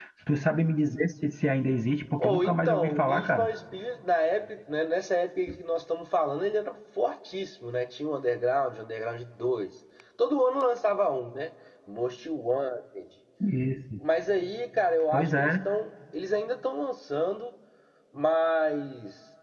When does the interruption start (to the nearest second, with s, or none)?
2 s